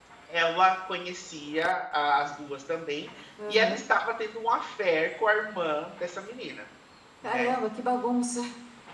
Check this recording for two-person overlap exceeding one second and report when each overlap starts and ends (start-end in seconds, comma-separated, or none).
none